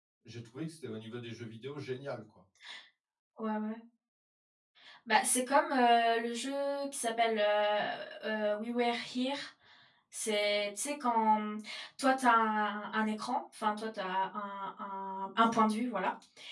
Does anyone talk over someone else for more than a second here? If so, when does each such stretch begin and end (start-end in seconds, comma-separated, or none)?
none